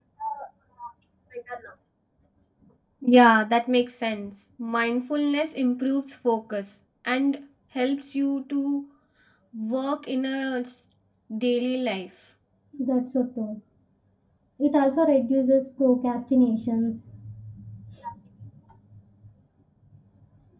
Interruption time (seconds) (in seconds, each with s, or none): none